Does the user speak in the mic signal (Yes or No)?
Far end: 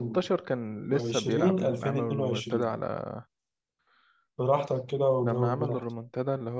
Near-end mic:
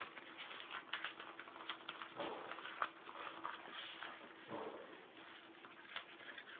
No